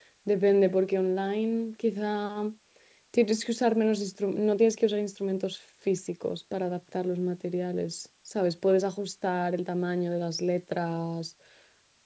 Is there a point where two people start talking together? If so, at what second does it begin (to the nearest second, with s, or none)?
none